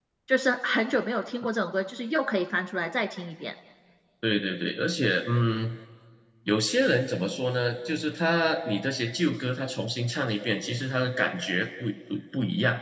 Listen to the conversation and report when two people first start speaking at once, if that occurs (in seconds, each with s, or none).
none